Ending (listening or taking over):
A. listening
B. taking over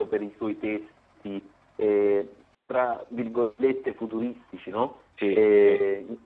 A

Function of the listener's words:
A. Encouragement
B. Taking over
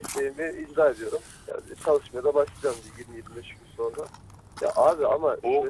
A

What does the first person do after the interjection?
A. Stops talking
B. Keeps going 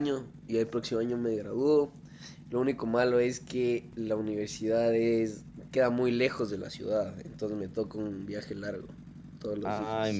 A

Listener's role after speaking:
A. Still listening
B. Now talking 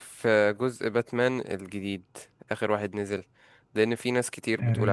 A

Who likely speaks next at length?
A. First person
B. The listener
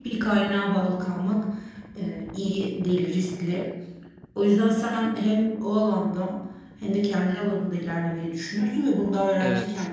A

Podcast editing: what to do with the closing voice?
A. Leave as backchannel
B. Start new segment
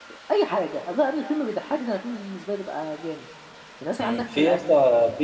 B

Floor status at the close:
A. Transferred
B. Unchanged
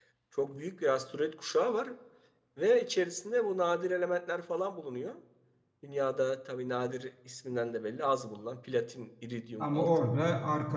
A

